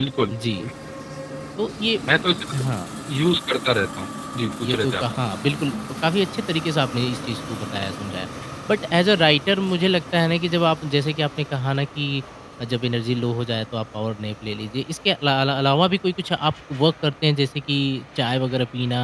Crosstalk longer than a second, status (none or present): none